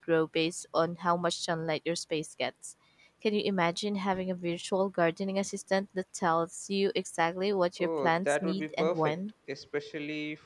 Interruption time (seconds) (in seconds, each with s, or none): 7.8 s